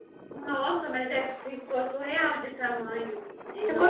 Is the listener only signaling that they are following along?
No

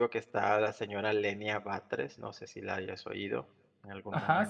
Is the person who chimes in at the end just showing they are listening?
No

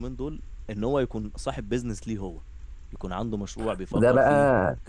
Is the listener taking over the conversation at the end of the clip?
Yes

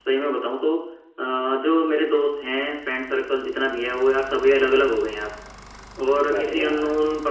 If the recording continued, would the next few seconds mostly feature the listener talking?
No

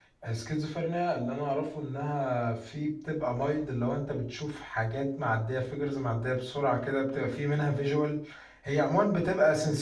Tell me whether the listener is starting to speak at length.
No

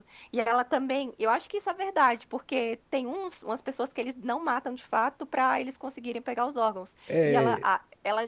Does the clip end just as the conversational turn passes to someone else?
No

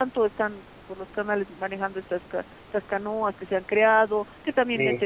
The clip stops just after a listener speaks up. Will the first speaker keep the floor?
Yes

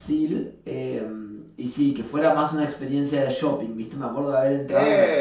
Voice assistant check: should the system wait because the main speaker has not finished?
Yes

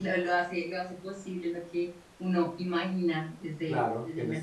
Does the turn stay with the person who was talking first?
No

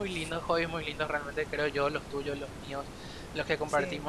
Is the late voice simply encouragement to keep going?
Yes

